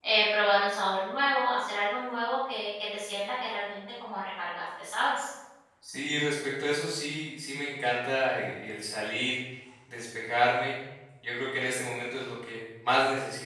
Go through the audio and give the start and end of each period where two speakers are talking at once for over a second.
none

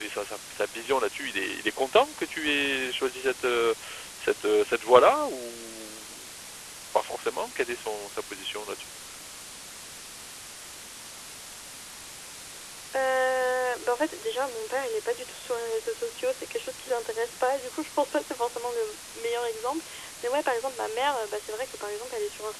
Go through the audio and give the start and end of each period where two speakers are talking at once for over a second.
none

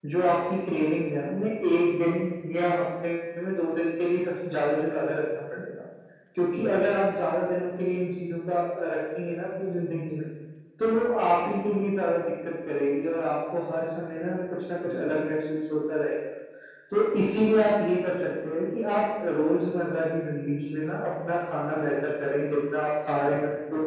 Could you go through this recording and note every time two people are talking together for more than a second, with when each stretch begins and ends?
none

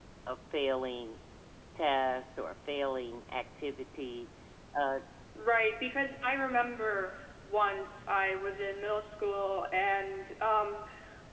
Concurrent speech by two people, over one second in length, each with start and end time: none

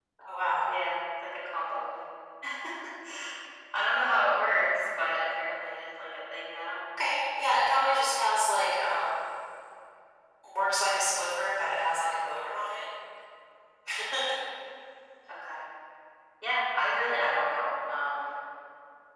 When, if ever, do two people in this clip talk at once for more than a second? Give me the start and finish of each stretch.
none

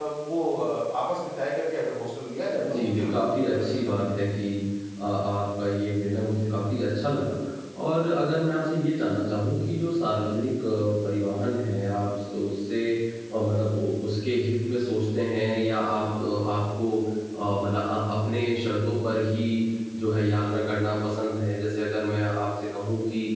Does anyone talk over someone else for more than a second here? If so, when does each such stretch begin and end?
2.6-4.3

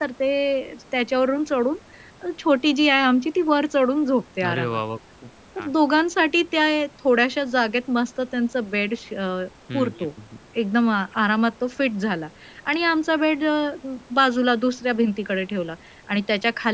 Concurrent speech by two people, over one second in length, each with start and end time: none

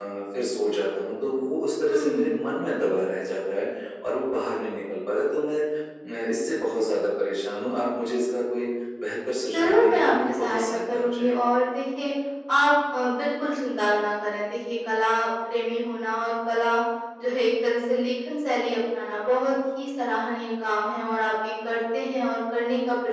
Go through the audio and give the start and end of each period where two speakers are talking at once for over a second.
9.5-11.3

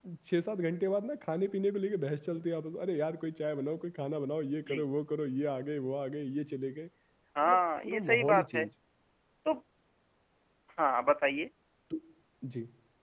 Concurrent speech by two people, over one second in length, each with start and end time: 7.4-8.6

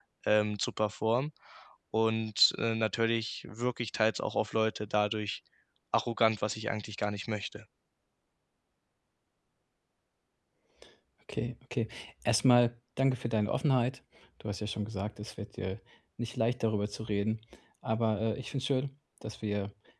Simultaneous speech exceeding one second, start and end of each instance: none

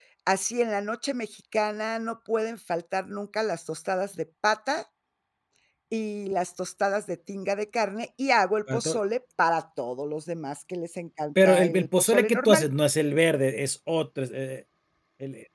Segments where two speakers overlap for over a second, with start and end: 11.4-12.7

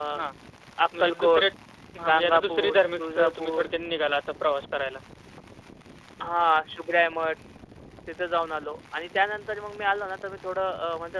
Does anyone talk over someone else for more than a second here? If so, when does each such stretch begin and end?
2.1-3.7

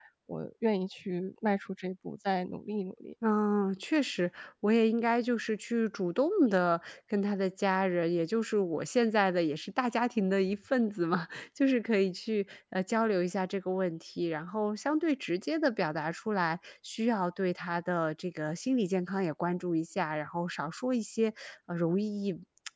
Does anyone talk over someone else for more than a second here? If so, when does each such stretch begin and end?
none

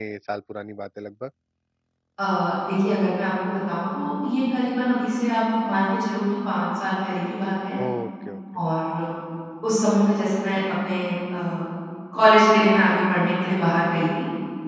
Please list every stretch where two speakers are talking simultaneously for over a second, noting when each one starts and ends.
none

